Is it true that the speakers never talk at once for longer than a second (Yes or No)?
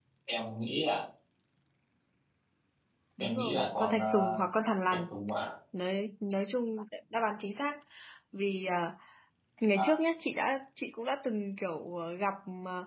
No